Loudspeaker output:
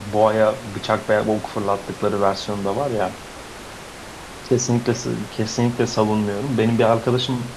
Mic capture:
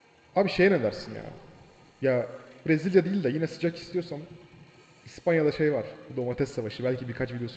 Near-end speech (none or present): present